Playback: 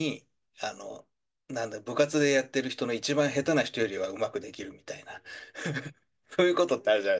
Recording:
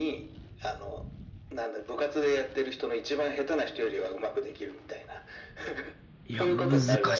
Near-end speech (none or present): present